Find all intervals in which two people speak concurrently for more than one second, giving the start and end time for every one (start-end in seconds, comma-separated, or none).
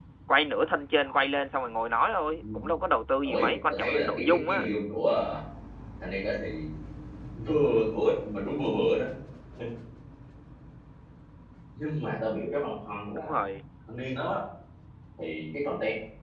3.2-4.7